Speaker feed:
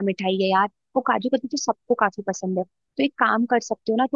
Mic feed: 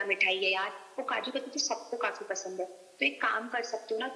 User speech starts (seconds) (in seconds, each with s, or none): none